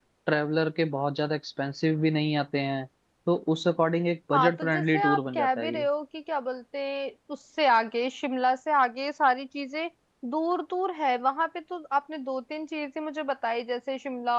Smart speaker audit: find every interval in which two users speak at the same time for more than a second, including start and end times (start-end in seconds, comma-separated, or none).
4.3-5.9